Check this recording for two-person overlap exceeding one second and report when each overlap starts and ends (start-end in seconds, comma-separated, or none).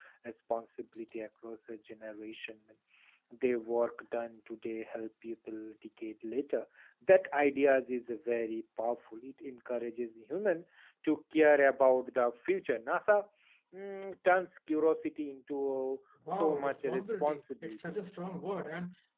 16.3-18.0